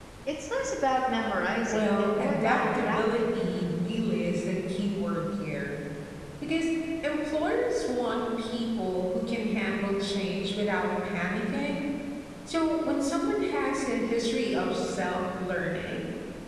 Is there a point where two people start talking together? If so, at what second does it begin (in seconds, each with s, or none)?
1.7 s